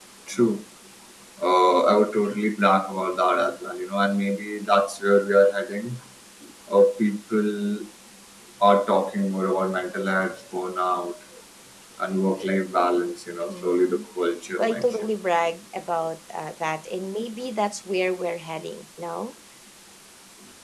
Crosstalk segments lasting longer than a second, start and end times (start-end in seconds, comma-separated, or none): none